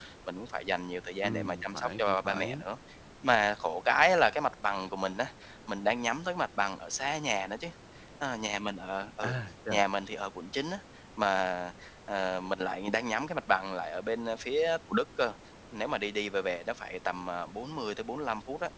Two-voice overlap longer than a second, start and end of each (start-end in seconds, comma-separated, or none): 1.2-2.6